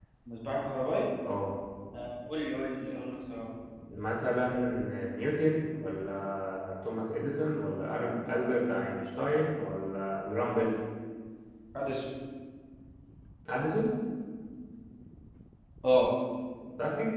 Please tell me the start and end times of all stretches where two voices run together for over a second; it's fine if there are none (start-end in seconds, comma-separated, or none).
none